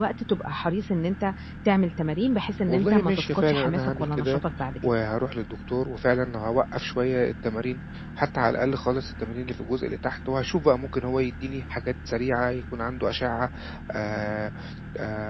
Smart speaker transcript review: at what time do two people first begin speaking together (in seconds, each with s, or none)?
2.7 s